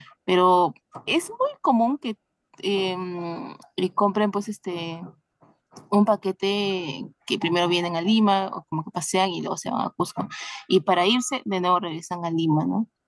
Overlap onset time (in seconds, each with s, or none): none